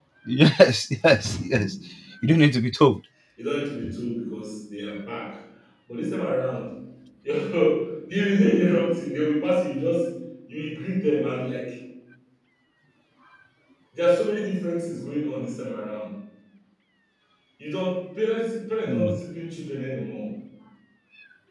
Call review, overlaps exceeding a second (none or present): none